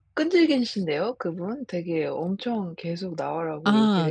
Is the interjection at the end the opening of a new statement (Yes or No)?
Yes